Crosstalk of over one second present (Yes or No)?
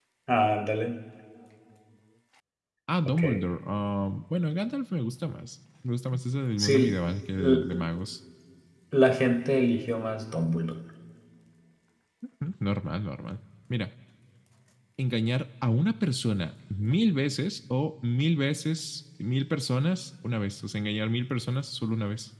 No